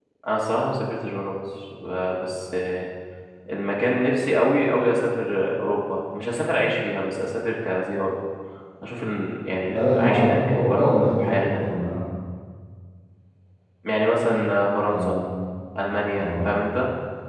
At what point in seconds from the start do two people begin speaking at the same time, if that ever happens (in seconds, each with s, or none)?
9.6 s